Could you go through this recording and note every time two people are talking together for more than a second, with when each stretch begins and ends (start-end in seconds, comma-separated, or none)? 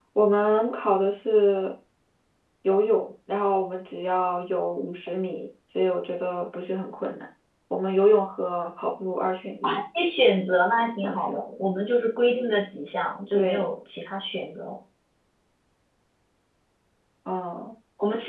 none